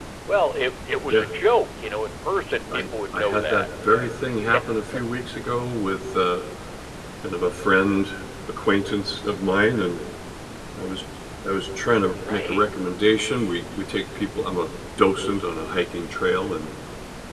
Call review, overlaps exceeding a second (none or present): present